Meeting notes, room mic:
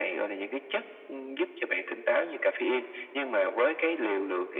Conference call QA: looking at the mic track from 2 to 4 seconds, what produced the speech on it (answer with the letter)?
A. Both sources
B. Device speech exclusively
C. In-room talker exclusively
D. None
B